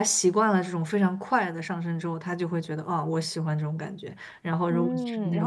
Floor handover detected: Yes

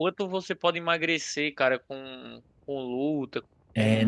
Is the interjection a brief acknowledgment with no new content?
No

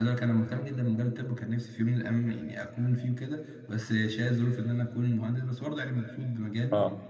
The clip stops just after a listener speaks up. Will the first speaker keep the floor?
No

